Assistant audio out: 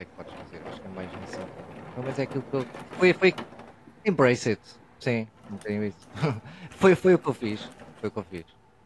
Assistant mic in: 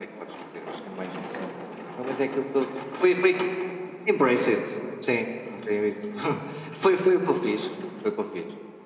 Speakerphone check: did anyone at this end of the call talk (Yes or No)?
No